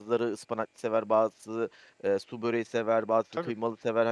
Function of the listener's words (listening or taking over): listening